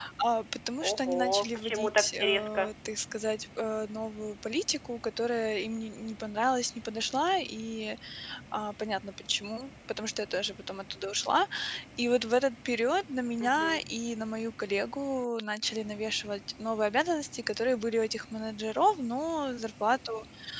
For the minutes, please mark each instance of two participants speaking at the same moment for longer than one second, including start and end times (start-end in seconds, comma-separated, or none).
0.8-2.7